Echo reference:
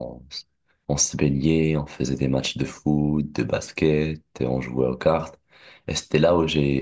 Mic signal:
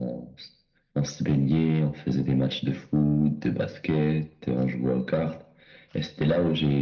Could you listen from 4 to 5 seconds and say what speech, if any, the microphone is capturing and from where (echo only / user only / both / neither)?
echo only